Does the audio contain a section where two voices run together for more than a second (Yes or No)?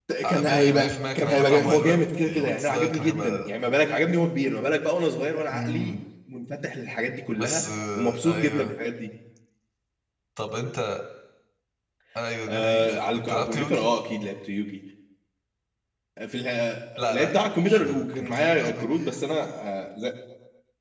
Yes